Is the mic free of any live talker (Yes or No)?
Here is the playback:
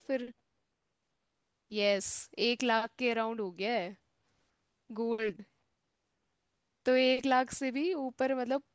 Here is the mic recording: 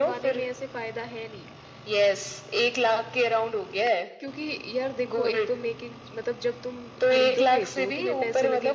No